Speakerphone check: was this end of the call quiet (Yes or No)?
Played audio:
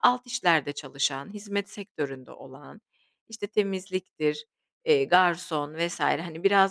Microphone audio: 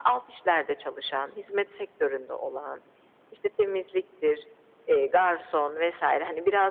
Yes